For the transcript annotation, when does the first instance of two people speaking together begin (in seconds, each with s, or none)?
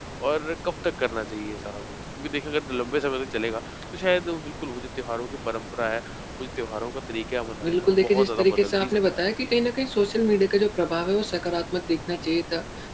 7.6 s